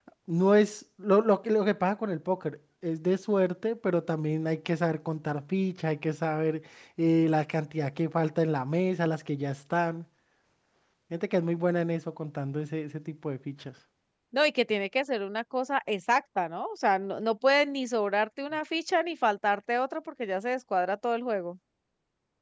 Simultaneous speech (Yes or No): No